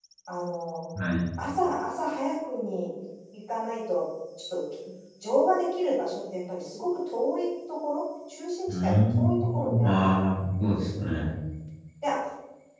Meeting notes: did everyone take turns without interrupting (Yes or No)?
No